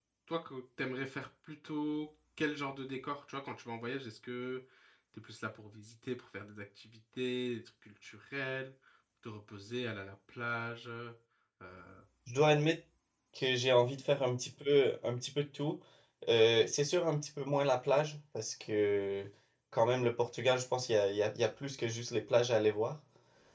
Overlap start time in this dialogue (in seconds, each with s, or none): none